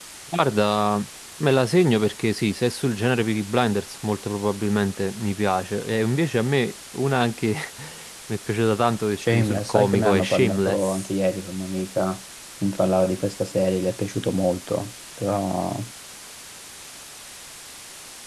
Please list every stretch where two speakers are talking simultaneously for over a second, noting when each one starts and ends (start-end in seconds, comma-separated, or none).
9.3-11.1